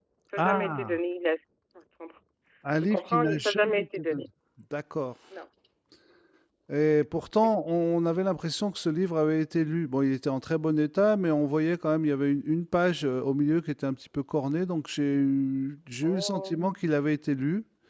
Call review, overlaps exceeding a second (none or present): present